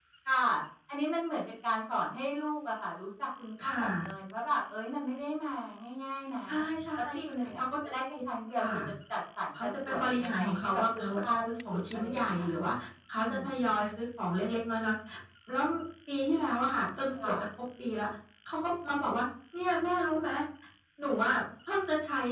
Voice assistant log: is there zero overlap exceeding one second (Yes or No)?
No